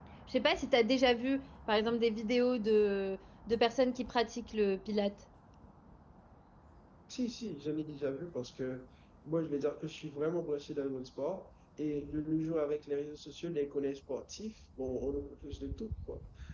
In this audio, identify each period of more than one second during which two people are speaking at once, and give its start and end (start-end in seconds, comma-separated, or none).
none